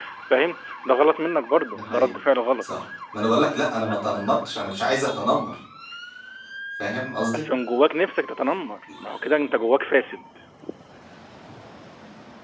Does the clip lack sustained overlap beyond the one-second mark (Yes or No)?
Yes